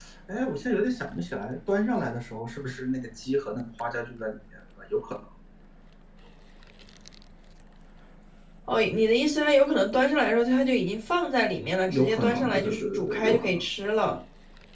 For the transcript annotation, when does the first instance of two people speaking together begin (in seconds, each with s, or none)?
11.9 s